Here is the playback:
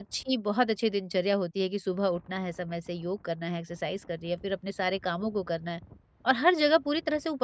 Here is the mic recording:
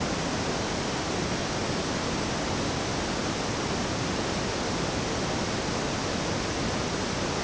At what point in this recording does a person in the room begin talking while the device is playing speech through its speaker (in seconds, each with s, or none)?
none